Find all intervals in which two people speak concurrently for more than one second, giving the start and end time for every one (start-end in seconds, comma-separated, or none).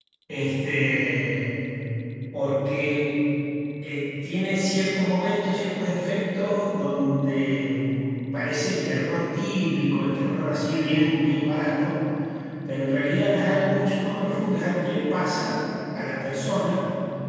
none